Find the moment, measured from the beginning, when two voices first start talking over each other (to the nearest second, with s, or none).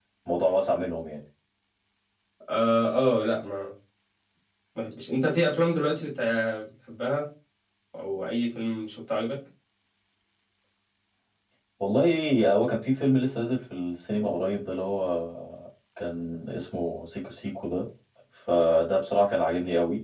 none